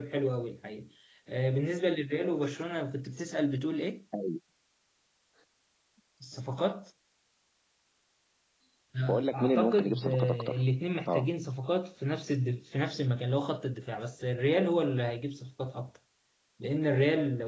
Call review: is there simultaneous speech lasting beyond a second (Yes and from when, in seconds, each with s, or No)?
Yes, from 9.3 s